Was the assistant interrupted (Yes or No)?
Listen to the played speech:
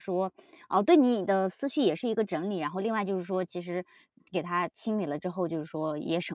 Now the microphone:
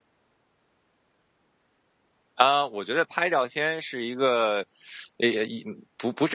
Yes